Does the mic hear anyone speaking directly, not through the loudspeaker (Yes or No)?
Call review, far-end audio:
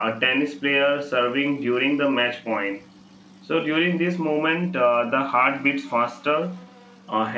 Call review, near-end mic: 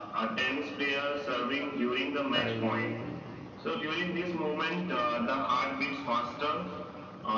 Yes